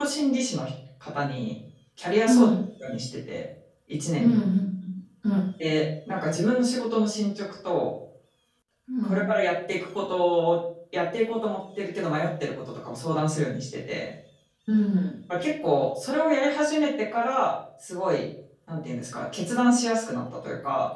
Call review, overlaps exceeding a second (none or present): none